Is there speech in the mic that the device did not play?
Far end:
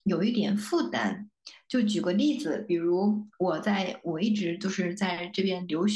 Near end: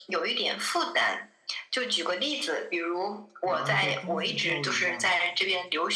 Yes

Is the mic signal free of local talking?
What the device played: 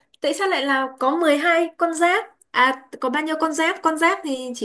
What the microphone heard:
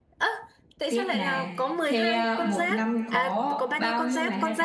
No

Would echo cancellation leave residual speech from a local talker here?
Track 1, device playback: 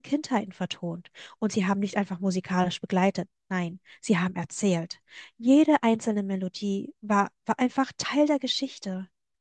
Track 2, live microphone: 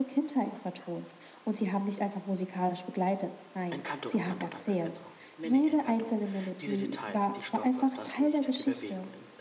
Yes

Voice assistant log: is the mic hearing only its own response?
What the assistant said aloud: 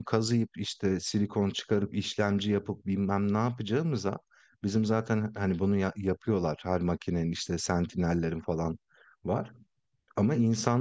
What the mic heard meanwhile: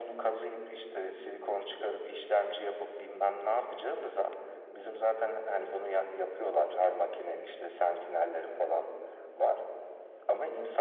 Yes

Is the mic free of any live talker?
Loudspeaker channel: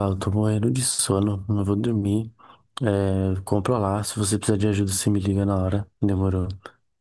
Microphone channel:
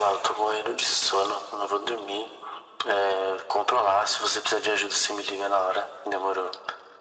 Yes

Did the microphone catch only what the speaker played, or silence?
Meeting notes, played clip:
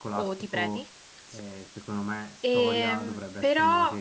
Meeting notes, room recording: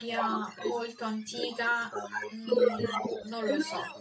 No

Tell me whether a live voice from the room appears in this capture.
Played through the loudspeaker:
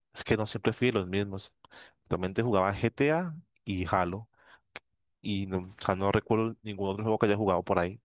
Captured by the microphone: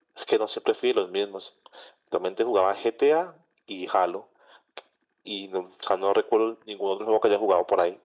No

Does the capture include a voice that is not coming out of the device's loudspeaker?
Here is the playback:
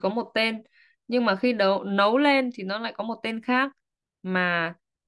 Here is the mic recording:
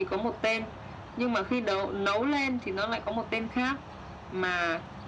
No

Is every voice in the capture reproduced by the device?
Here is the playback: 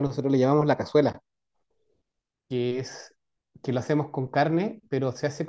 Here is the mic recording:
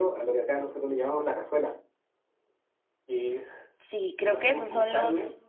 No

